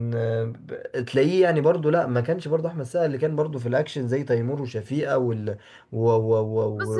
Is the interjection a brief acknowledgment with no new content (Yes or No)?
No